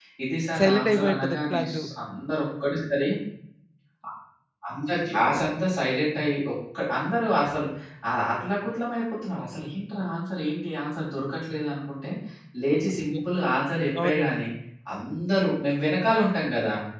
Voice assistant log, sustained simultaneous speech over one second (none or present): present